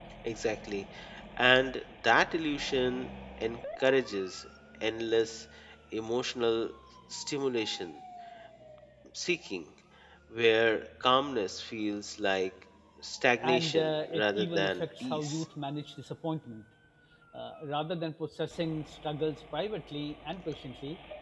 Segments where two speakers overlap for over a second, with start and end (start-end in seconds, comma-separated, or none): 13.4-15.4